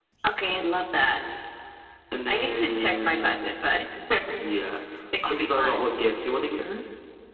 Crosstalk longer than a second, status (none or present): present